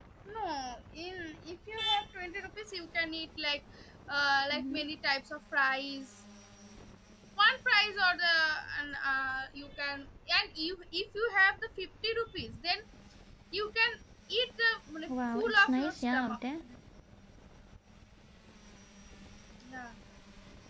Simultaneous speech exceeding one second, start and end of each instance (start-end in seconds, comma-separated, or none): 15.1-16.4